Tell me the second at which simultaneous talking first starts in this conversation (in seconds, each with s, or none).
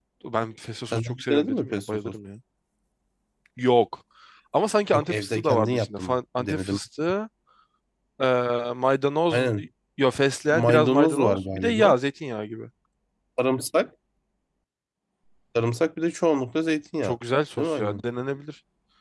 0.9 s